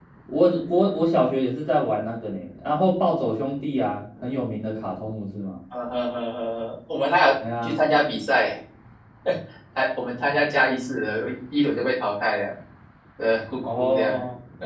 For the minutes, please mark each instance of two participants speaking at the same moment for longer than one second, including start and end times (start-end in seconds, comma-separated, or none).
none